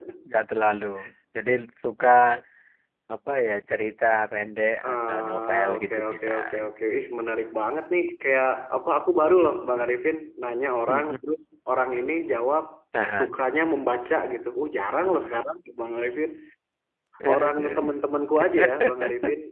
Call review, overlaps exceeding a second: present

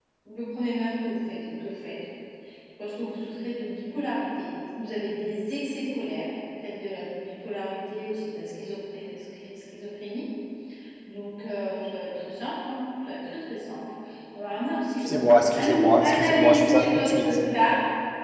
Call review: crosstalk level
present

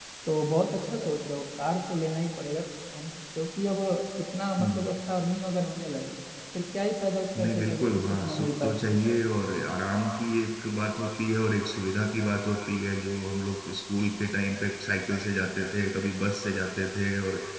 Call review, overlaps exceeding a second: present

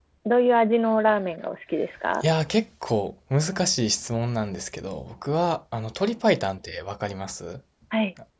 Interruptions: none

